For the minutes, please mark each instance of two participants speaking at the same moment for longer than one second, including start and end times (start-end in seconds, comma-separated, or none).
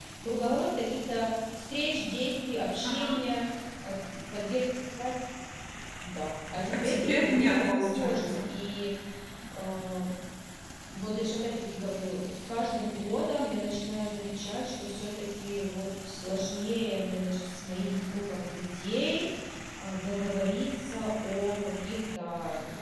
6.7-8.5